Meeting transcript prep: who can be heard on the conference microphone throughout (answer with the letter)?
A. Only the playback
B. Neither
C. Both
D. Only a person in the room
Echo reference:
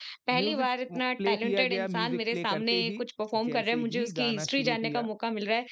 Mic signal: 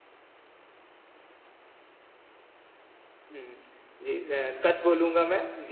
D